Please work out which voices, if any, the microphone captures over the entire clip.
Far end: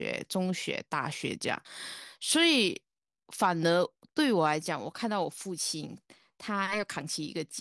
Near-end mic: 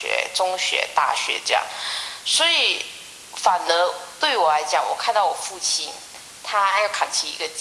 echo only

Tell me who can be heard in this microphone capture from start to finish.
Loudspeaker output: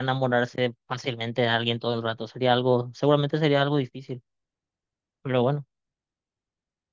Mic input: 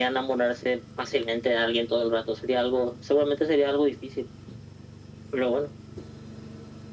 echo only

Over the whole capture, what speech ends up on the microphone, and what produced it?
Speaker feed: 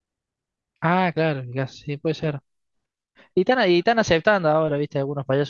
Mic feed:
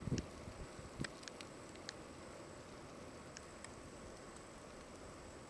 neither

